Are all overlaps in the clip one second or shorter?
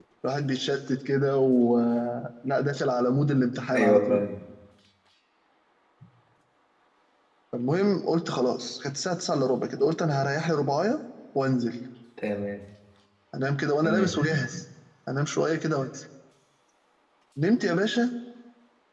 Yes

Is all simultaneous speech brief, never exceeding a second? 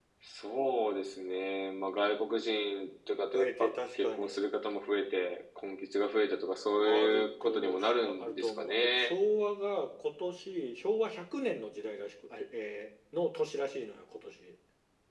No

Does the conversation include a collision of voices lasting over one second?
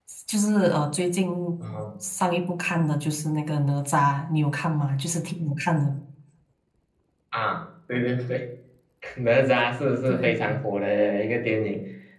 No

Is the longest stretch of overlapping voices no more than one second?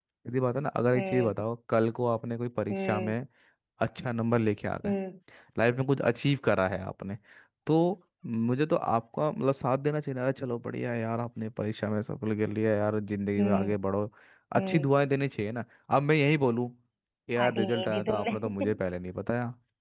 No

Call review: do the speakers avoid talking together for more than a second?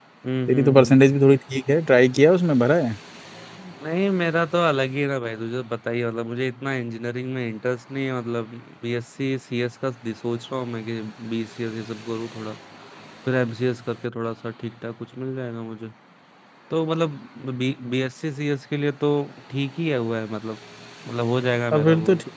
Yes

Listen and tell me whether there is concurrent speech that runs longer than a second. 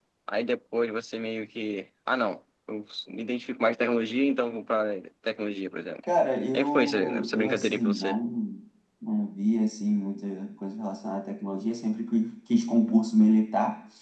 Yes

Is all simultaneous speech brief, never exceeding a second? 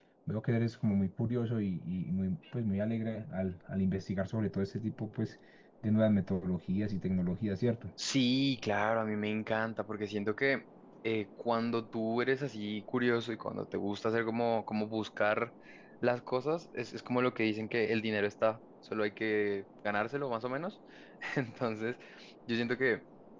Yes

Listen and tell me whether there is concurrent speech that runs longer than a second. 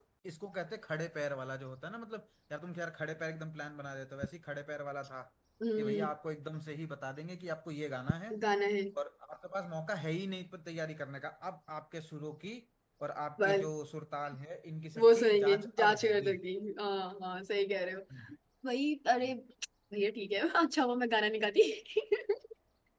Yes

